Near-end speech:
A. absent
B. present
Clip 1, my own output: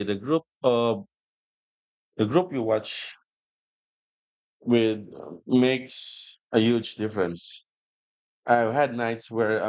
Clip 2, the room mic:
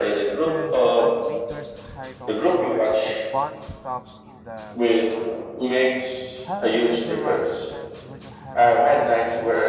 B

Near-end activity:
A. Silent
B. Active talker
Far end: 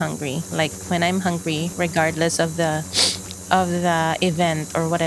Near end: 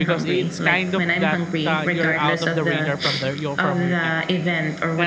B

